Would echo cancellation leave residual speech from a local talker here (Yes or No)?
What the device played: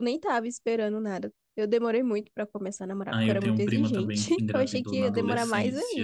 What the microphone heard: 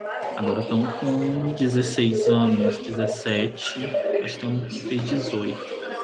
Yes